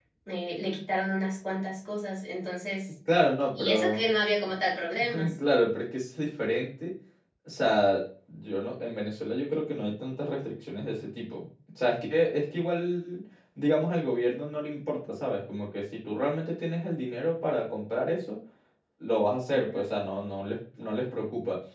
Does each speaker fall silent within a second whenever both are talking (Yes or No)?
Yes